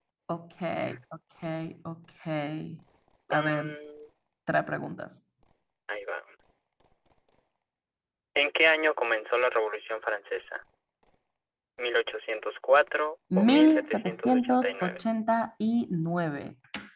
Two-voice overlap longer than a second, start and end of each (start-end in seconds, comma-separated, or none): 13.4-15.0